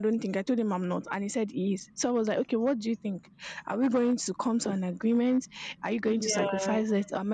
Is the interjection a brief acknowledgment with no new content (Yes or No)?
Yes